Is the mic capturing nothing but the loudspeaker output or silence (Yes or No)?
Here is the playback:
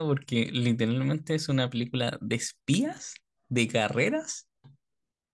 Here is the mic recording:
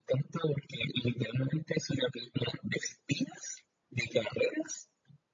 Yes